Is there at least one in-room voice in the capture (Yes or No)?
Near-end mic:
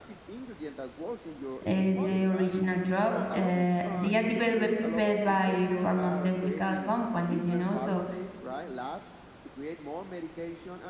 Yes